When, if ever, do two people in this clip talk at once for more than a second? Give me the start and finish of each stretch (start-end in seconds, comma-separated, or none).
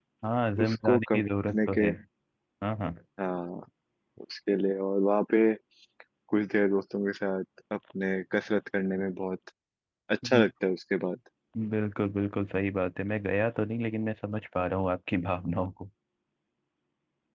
0.6-1.9